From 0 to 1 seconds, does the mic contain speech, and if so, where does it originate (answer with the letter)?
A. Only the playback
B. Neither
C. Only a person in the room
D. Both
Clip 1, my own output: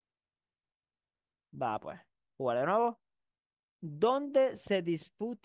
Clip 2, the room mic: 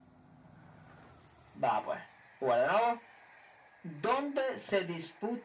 B